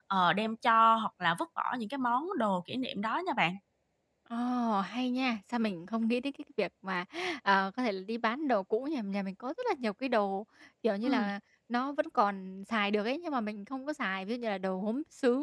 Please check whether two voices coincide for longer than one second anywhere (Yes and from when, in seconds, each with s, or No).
No